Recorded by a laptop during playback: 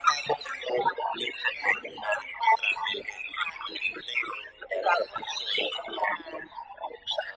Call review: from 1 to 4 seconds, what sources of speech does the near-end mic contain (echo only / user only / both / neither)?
echo only